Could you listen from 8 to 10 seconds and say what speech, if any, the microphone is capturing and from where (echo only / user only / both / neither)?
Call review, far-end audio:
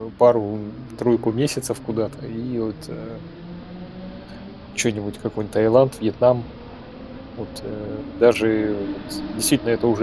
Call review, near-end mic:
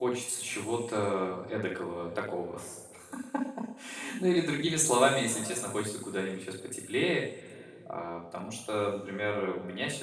user only